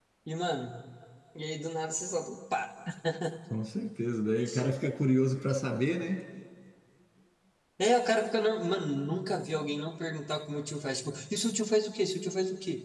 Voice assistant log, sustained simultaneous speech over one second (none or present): none